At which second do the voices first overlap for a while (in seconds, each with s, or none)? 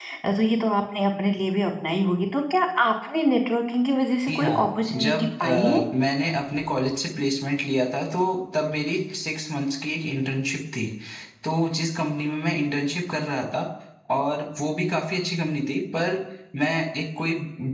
4.3 s